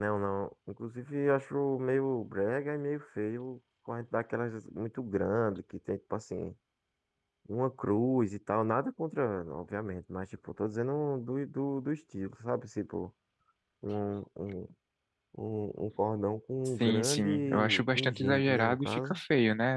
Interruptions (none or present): present